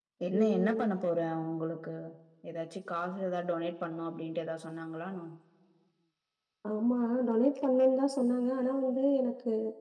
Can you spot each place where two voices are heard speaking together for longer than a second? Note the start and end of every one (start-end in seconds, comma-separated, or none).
none